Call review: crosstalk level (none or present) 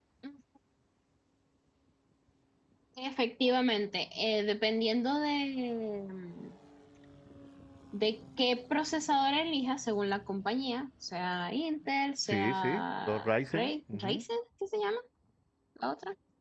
present